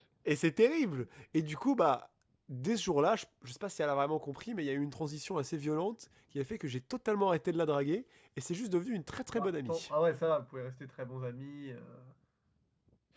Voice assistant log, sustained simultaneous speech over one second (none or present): none